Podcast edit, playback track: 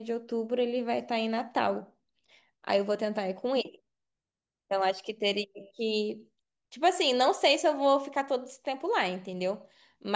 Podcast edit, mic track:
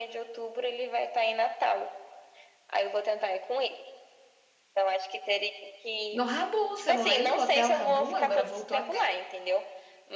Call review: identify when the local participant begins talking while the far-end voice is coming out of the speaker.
6.1 s

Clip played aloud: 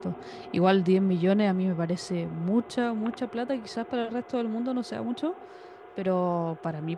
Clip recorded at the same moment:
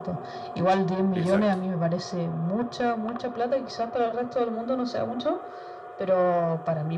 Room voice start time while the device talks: 1.1 s

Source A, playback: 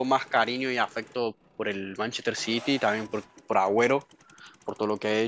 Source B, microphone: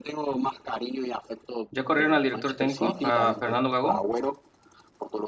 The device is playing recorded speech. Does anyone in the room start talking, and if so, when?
1.7 s

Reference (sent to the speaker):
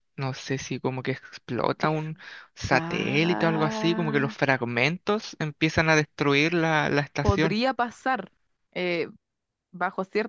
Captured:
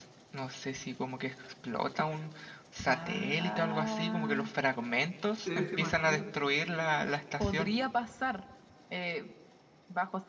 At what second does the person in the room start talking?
5.4 s

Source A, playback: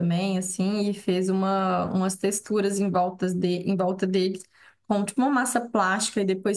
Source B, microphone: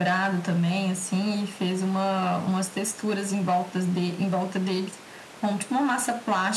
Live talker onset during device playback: none

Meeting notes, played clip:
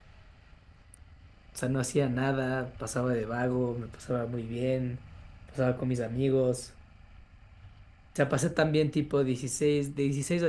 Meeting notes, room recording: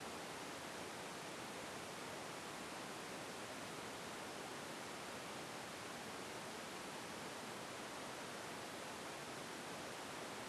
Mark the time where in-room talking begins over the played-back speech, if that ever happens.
none

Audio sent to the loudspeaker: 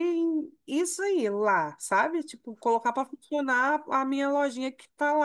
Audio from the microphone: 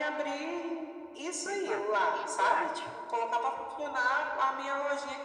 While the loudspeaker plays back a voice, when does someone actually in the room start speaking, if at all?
1.4 s

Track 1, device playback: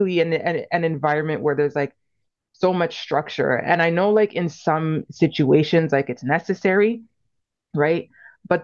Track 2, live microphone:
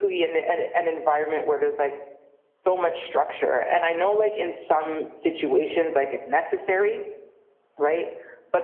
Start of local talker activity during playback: none

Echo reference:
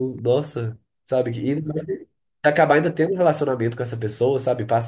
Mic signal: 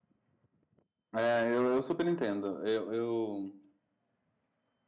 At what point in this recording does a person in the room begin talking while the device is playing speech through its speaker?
1.2 s

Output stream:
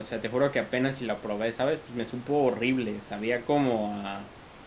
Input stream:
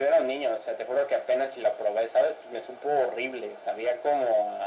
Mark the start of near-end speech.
none

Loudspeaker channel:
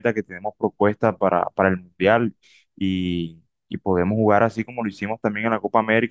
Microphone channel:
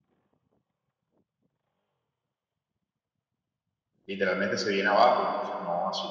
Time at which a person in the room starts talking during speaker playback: 4.0 s

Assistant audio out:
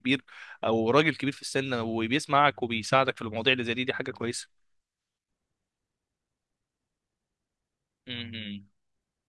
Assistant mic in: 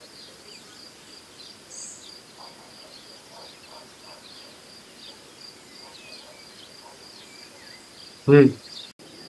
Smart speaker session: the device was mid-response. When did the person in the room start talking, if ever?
8.3 s

